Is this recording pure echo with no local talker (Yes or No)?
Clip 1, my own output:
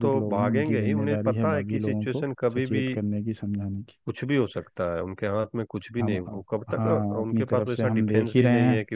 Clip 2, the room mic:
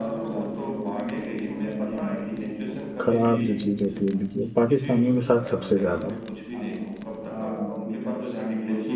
No